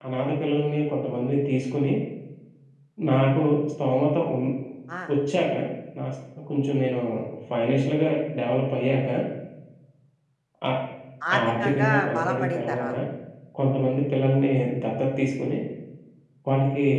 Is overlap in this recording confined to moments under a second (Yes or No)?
No